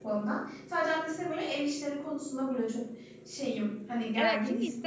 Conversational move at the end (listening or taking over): taking over